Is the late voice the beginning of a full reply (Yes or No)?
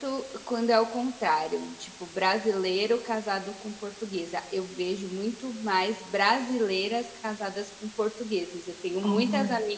No